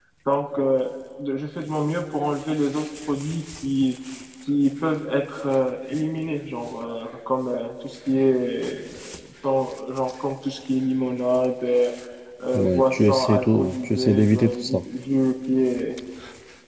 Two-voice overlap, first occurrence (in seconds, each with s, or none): 12.5 s